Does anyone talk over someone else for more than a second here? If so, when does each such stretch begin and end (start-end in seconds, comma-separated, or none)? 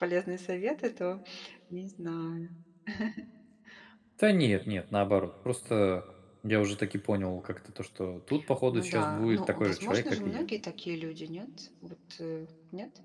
8.7-10.4